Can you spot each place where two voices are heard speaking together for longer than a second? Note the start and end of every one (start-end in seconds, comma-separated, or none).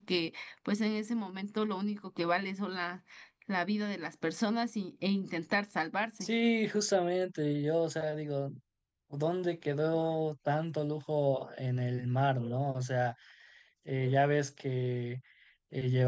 none